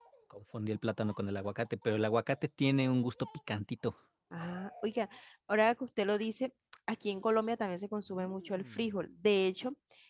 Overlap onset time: none

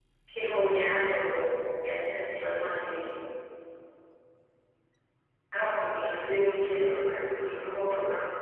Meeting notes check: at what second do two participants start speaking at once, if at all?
none

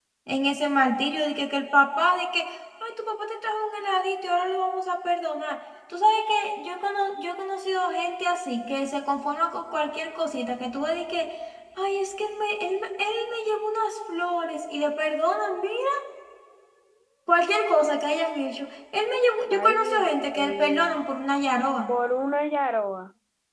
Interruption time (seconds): 19.5 s

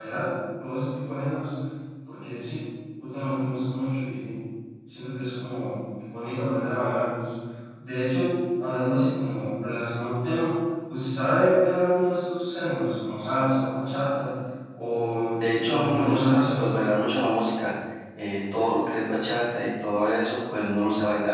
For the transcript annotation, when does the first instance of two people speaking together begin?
15.3 s

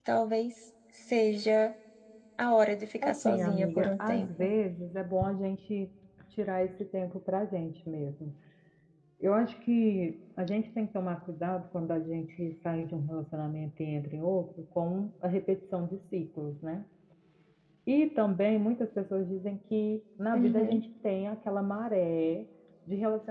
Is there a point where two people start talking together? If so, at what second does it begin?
3.0 s

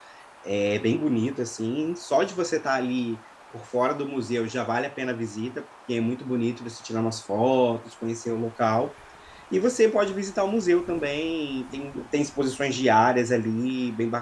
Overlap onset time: none

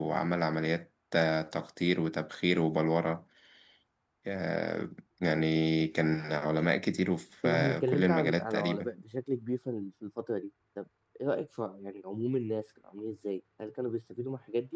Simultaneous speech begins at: 7.4 s

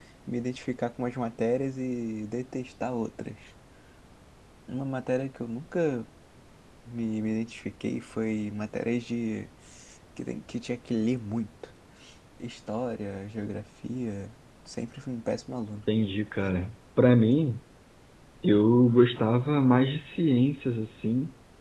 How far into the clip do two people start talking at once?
none

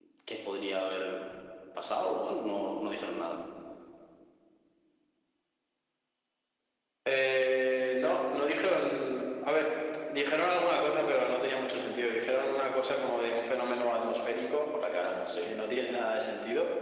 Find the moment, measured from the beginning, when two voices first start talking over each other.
none

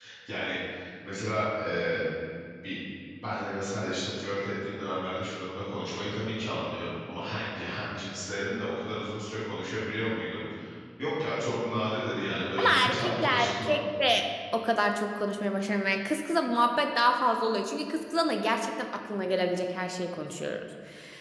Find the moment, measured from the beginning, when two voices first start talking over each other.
12.6 s

